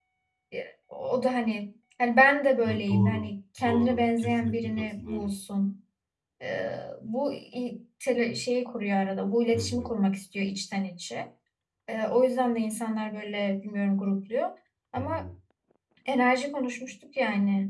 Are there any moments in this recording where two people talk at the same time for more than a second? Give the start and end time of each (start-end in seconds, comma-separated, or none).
2.6-5.3